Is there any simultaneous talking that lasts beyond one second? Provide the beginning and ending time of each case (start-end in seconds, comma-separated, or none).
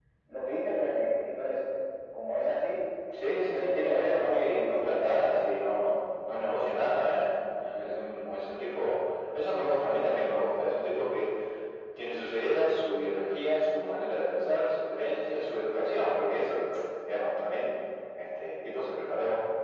3.4-5.4